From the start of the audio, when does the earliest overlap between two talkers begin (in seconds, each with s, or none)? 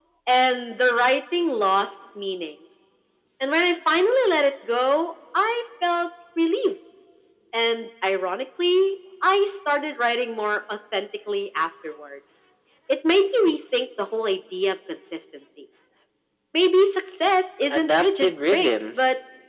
17.7 s